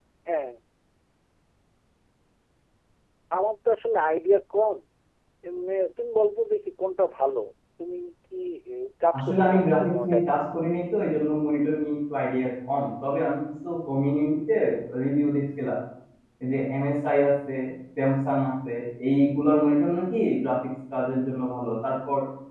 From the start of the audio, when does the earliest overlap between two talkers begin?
9.2 s

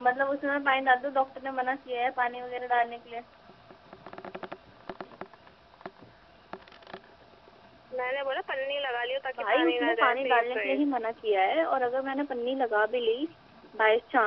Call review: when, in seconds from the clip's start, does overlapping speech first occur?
9.3 s

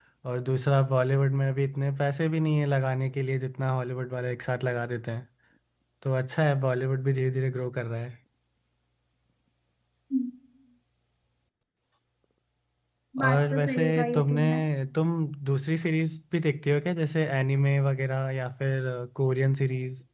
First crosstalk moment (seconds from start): 13.2 s

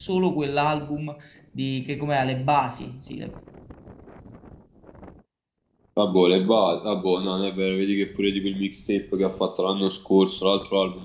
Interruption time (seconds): none

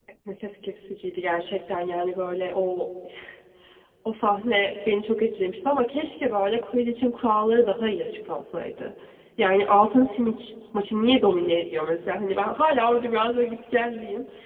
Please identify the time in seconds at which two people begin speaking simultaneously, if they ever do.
none

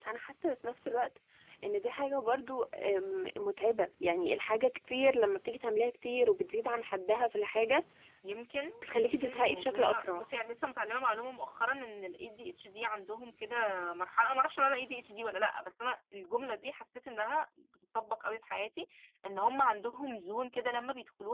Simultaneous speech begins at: 8.9 s

